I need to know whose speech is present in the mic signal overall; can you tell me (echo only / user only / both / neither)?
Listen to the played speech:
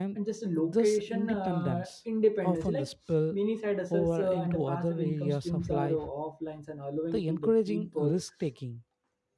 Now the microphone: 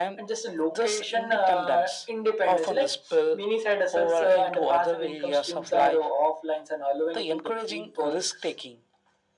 echo only